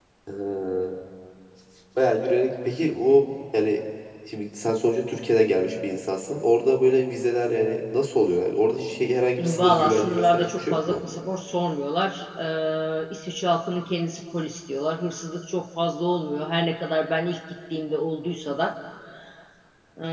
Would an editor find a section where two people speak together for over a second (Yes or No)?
Yes